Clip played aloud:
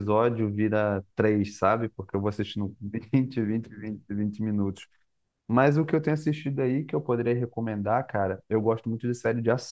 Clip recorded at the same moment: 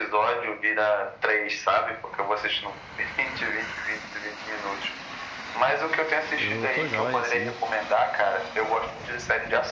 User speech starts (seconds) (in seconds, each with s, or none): 6.4 s